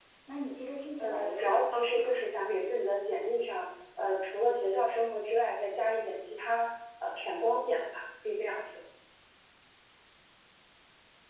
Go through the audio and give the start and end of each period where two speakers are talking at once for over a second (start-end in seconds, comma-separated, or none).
1.0-2.2